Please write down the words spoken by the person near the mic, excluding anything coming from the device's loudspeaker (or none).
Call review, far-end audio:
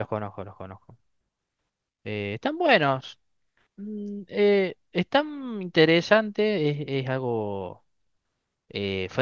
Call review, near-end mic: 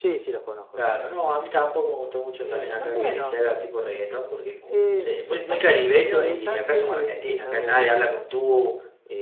Claro, no, a mí tampoco me gusta mucho también acá que se haga tipo reggaetón porque es como, sí, muy, muy caribeño y acá somos argentinos, acá nadie habla con tú